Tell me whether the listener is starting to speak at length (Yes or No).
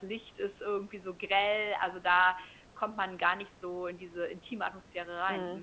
Yes